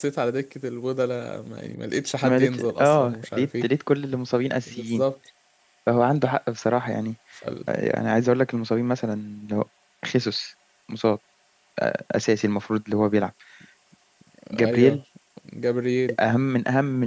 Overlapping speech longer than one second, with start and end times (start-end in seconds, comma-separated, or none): 2.2-3.6